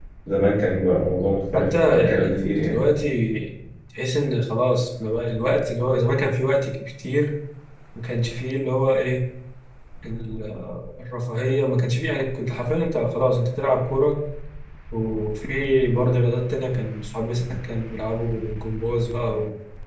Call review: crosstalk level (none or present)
present